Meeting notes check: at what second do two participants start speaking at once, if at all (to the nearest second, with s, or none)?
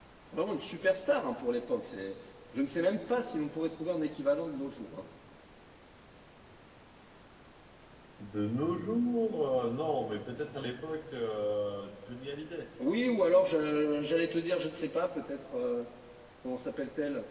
none